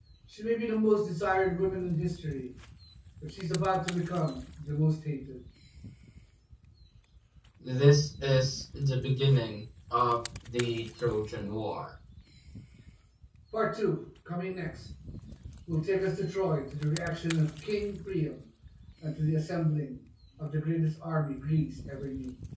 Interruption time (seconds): none

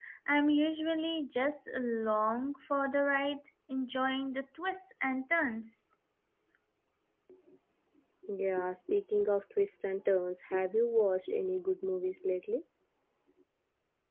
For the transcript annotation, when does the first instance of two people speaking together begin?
none

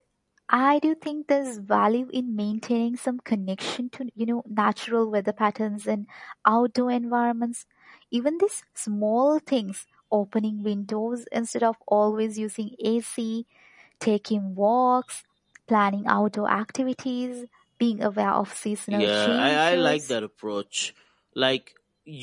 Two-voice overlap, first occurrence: 19 s

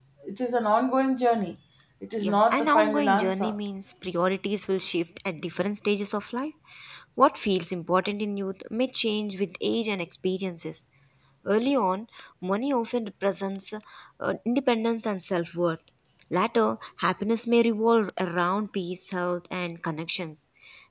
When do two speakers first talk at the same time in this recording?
2 s

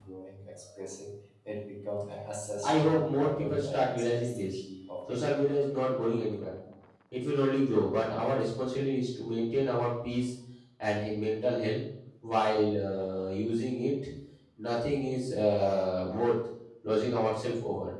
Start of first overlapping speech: 3 s

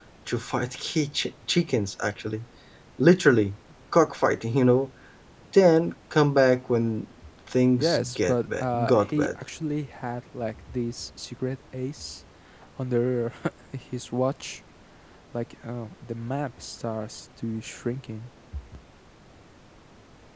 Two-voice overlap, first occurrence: 8 s

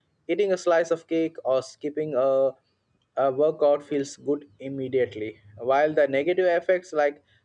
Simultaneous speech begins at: none

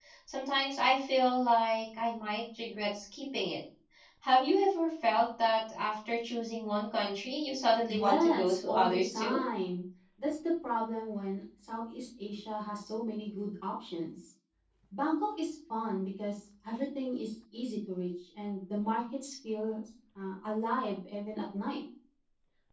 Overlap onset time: 8 s

